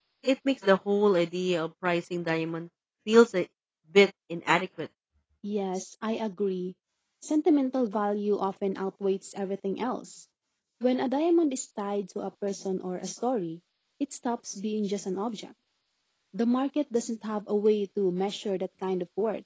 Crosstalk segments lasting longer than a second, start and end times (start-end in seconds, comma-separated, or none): none